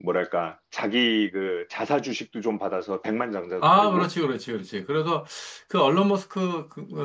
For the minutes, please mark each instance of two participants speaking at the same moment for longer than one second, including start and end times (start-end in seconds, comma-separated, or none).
none